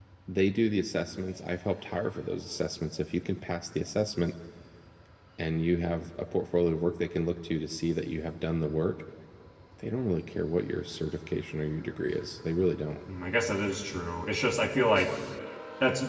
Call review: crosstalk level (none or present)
none